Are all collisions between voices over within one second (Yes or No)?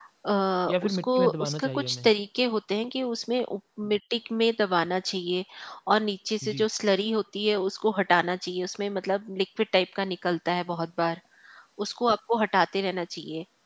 No